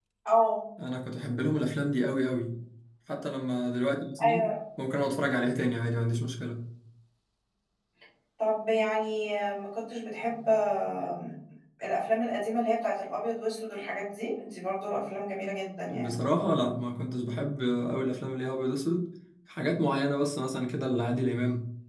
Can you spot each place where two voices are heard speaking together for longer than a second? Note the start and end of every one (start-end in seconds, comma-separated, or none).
none